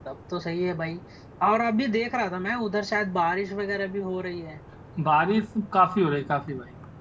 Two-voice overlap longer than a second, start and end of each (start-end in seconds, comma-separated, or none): none